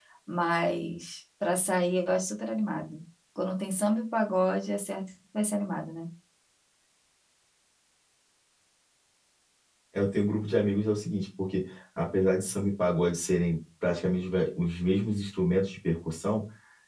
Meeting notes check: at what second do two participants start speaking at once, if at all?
none

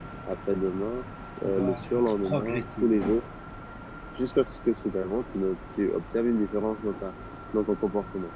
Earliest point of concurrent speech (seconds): 1.4 s

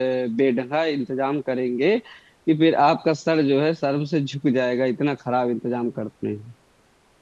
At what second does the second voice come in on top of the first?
none

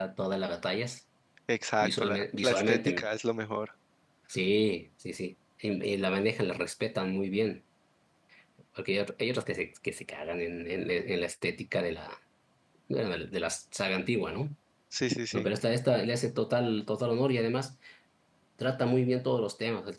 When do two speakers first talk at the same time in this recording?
1.8 s

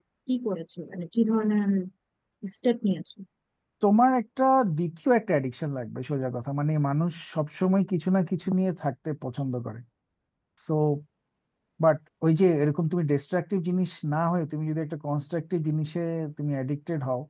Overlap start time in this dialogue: none

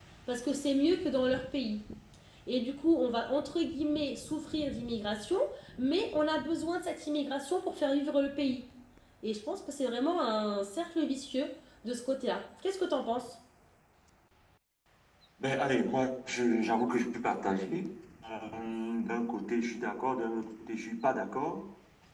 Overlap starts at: none

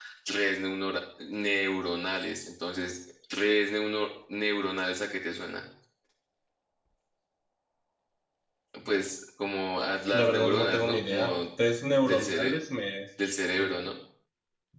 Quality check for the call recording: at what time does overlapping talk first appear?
10.1 s

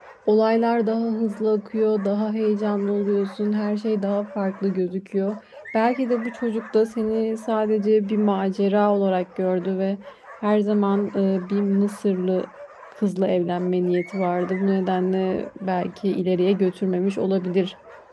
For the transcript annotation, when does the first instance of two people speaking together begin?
none

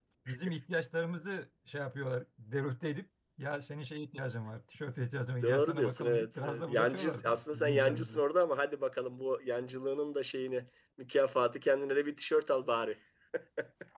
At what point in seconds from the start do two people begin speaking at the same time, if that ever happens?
5.4 s

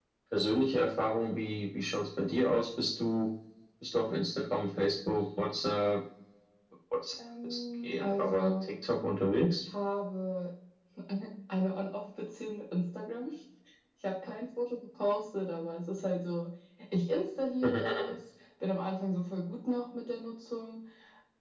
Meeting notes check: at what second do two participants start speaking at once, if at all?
7.4 s

